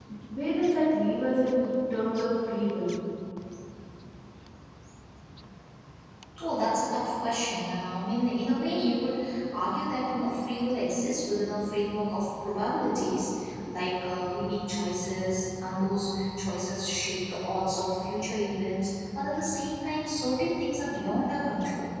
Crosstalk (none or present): none